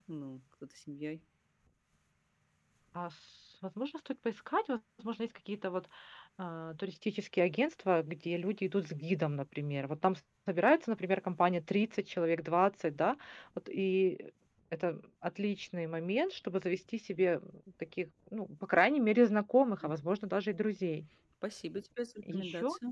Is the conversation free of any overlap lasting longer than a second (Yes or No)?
Yes